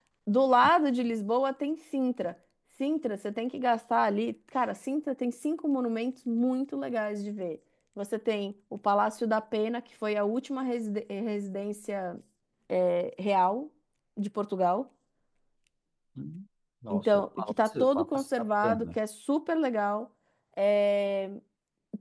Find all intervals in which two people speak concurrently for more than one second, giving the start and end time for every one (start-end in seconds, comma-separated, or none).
16.9-19.0